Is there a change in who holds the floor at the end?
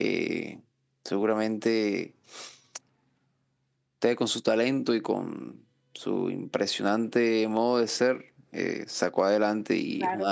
No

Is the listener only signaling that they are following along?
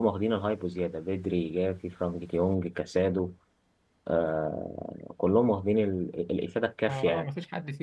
No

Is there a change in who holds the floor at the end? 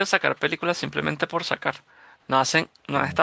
No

